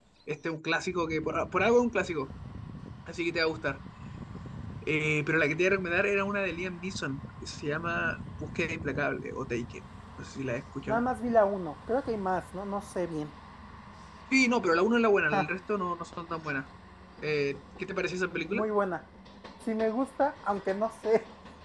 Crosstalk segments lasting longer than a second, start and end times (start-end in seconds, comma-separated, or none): none